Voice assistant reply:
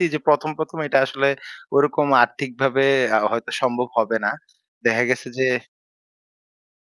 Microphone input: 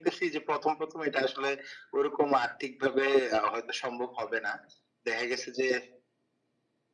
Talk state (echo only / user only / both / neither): echo only